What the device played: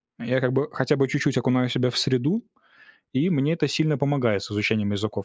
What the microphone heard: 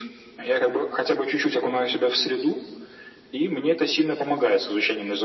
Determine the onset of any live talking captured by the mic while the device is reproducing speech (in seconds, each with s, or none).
none